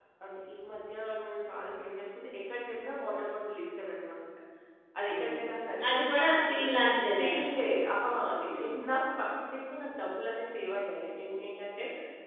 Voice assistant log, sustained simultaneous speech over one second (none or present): none